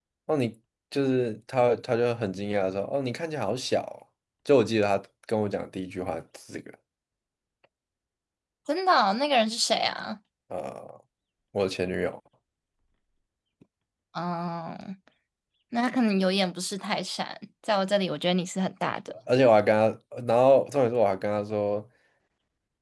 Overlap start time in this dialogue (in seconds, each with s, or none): none